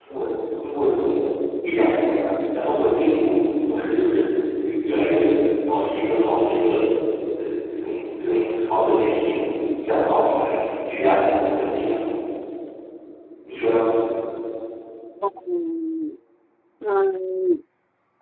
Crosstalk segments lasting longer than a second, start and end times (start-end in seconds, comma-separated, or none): none